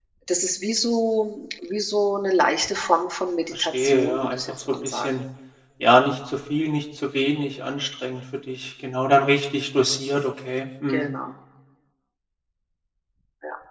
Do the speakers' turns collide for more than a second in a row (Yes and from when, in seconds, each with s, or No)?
Yes, from 3.5 s